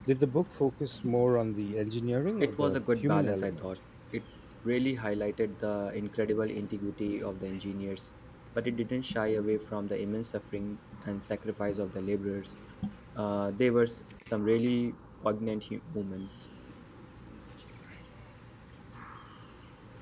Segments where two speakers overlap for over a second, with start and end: 2.4-3.6

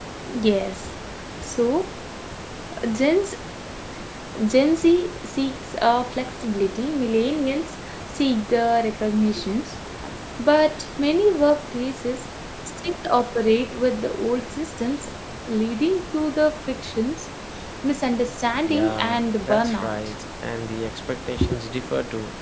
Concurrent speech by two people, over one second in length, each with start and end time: 18.7-19.9

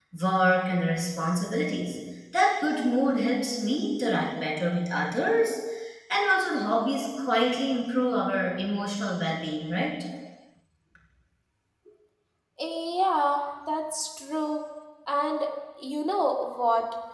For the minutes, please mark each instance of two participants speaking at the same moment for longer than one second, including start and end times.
none

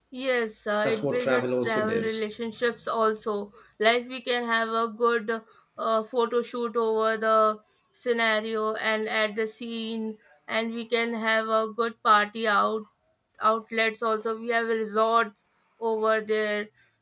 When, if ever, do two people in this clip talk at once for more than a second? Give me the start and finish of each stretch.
0.8-2.2

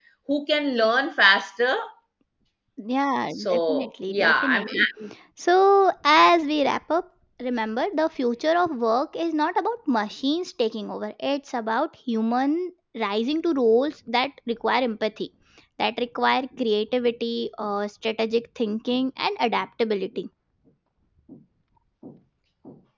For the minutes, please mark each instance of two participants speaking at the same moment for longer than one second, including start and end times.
3.4-4.8

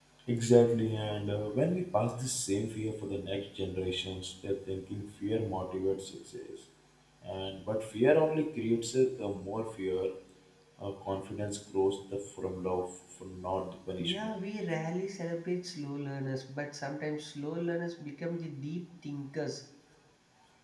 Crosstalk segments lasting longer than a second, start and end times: none

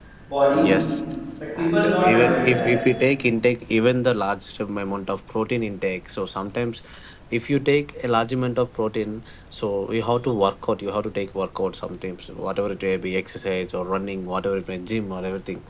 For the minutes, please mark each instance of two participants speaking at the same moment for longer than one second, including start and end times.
1.6-2.8

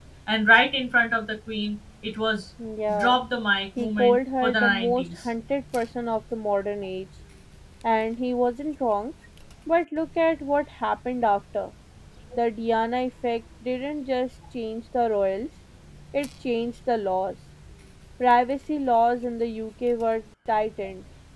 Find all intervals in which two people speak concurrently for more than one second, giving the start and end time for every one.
3.8-5.3

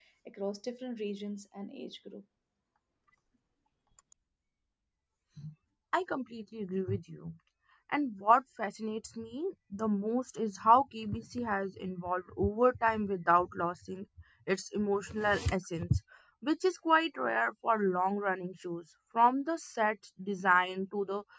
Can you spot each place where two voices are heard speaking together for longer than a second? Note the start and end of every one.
none

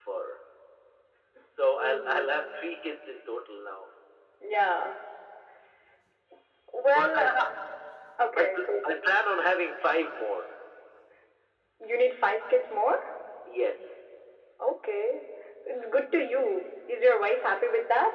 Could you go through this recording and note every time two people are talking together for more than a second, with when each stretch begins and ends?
none

